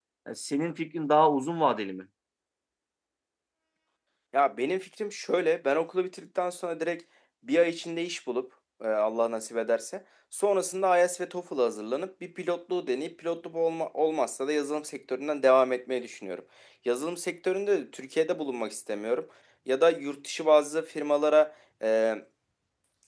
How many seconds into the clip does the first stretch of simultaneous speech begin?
none

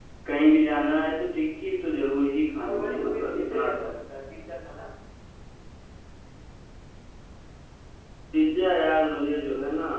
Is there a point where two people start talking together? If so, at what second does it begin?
2.6 s

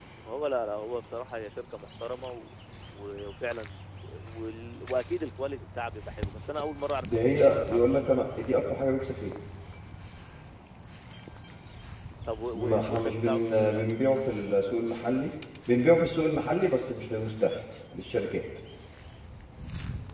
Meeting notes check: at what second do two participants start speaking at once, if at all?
7.0 s

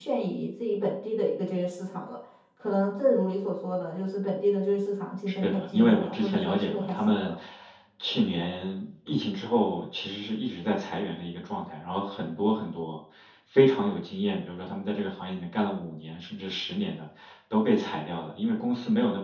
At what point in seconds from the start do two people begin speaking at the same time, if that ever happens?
5.3 s

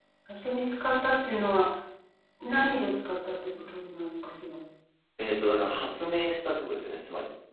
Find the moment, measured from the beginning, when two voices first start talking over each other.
none

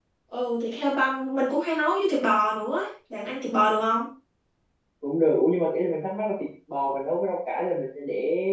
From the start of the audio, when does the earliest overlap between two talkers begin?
none

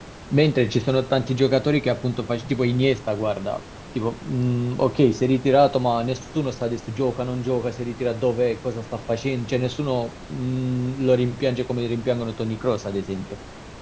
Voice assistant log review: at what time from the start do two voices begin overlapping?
none

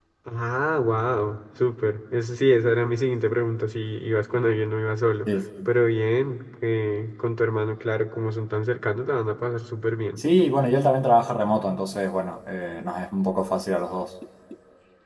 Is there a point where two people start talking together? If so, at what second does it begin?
none

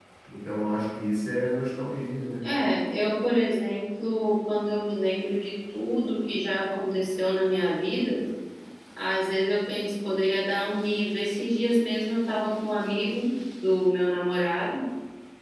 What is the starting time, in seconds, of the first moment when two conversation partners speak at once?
none

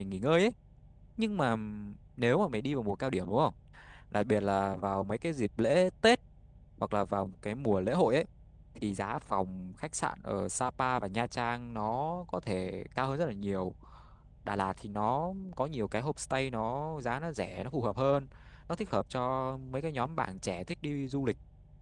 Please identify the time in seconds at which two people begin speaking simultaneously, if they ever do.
none

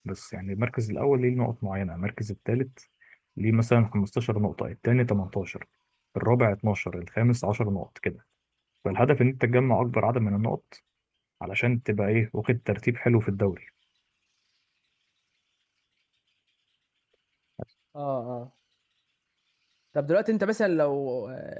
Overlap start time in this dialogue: none

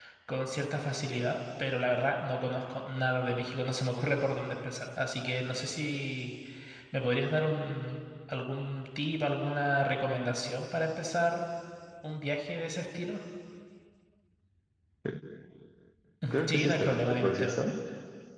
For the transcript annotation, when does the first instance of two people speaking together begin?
16.5 s

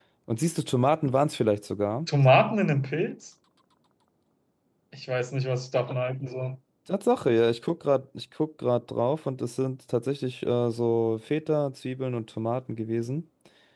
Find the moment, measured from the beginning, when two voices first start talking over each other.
none

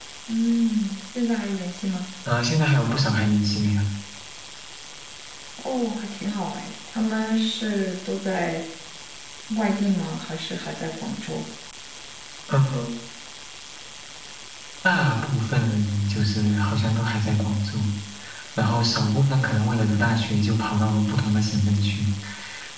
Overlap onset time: none

